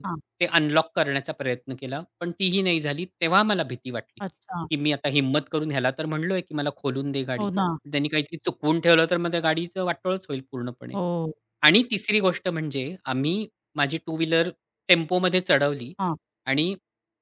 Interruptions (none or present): none